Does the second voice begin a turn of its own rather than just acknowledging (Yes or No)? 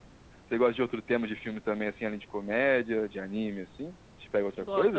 Yes